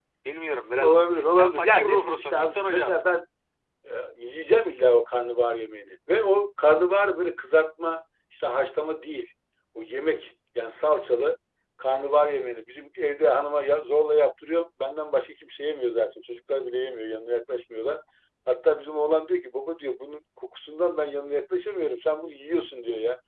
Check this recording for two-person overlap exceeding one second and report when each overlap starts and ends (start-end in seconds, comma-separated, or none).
0.8-3.0